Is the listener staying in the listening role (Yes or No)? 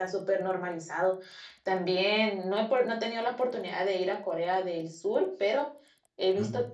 Yes